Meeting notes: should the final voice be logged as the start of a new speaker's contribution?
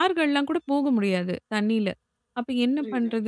No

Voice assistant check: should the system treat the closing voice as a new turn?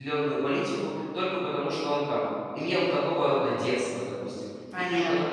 No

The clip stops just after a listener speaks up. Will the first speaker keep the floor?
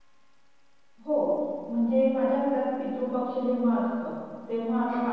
Yes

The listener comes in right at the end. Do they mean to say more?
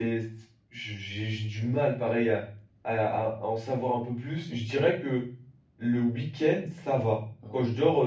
No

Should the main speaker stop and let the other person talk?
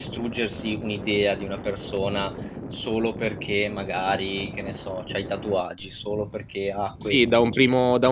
Yes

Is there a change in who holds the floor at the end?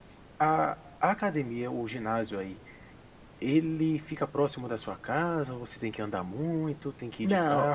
Yes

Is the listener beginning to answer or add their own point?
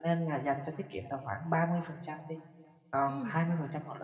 No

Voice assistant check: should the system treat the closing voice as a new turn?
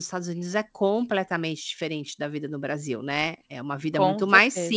No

